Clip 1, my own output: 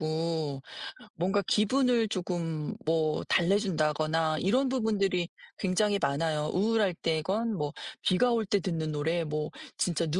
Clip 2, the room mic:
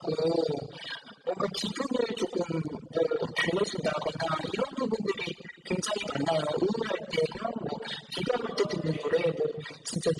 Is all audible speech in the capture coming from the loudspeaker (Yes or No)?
No